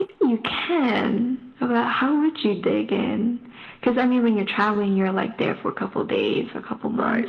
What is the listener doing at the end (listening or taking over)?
taking over